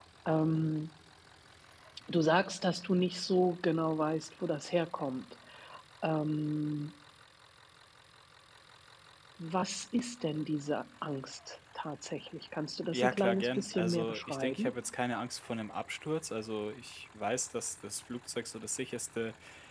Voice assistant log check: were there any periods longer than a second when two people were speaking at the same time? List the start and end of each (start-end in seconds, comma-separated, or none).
12.9-14.8